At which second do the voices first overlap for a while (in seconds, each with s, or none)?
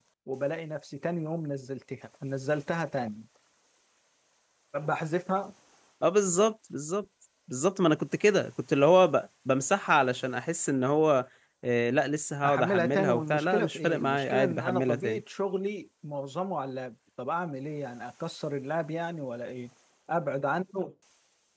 12.4 s